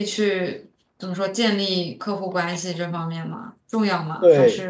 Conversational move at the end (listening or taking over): taking over